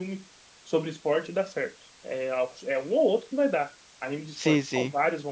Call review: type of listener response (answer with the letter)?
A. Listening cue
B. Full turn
B